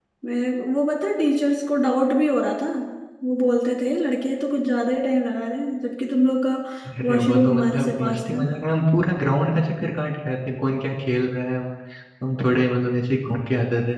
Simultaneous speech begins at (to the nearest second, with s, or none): 7 s